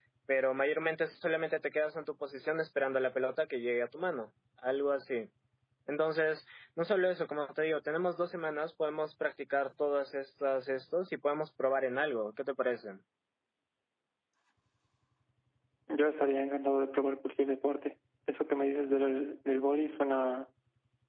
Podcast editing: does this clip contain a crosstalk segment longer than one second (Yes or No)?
No